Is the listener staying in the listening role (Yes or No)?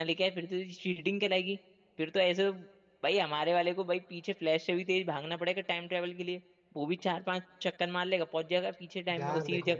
No